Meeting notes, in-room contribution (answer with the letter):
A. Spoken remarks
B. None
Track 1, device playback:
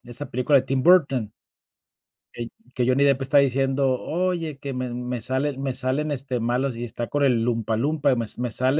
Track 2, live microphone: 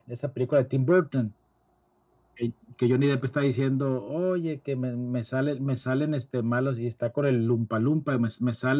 B